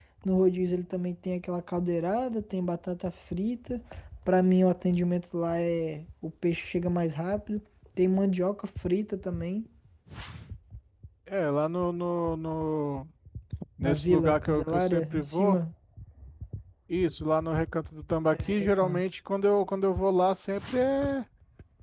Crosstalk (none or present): present